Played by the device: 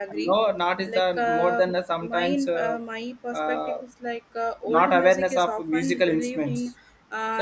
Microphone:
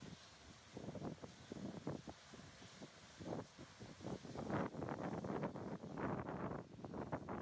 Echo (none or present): none